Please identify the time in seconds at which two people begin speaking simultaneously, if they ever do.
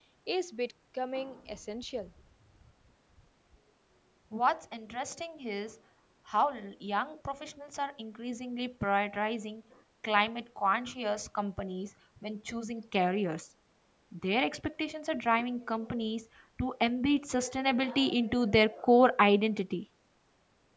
none

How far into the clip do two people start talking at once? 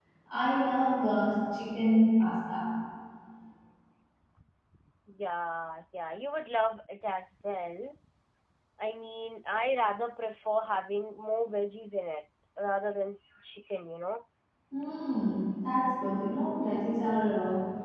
none

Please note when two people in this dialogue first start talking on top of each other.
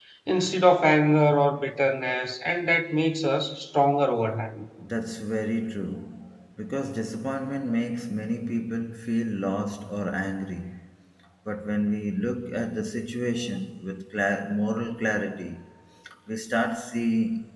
none

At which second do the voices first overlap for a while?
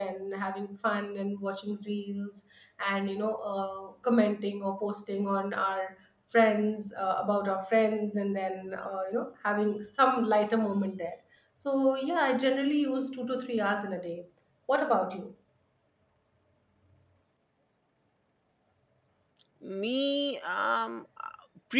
none

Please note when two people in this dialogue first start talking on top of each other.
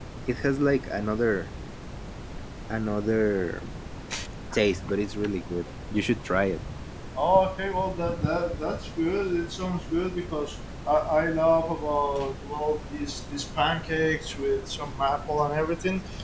none

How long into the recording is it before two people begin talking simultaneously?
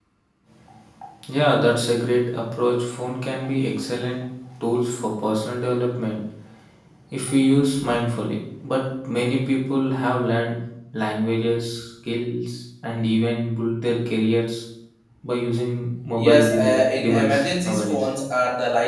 16 s

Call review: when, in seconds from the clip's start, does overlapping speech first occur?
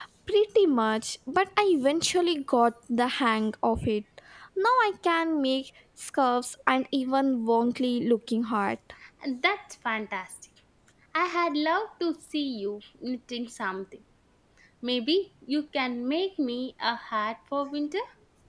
none

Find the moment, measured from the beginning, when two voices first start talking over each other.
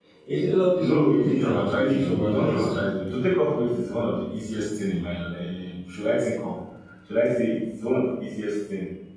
1 s

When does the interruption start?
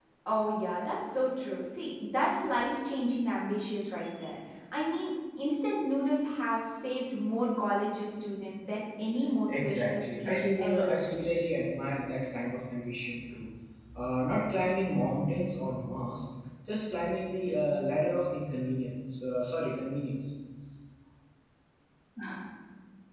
9 s

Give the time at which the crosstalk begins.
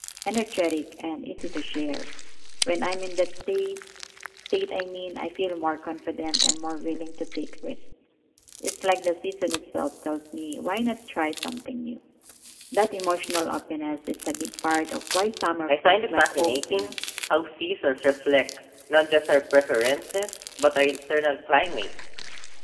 16 s

